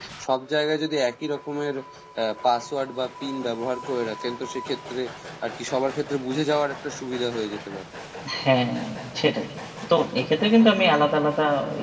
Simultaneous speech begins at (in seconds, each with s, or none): none